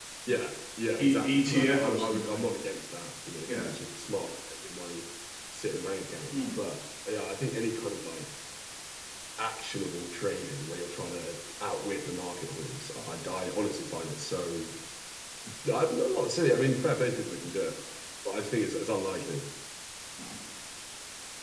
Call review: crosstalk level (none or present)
present